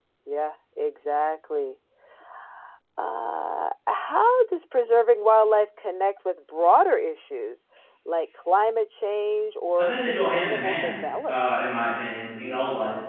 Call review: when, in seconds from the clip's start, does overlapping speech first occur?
9.8 s

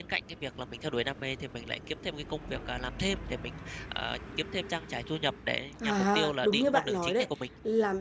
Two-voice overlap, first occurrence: 5.8 s

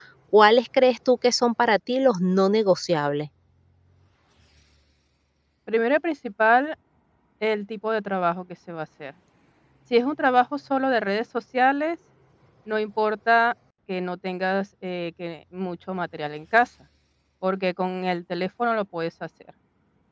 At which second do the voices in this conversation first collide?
none

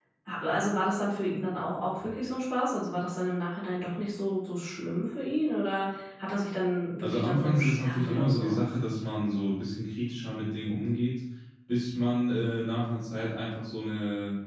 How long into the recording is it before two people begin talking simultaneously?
7.0 s

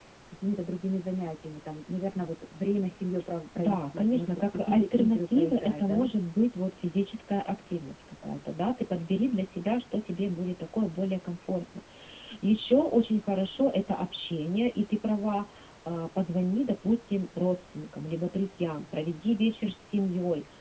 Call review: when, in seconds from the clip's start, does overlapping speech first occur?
3.5 s

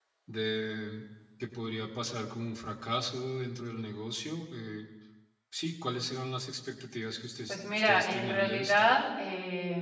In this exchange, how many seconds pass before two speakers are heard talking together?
7.5 s

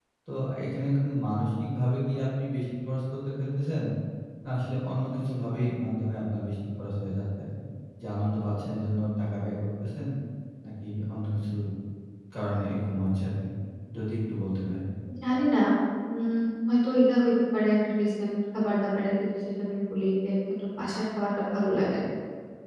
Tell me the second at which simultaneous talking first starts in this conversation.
none

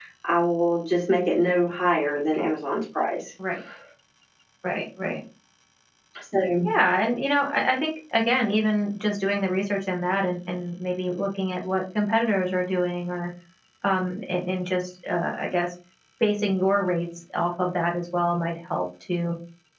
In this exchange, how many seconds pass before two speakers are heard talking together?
none

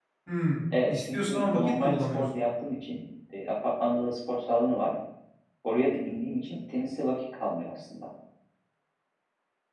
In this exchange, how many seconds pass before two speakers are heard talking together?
0.9 s

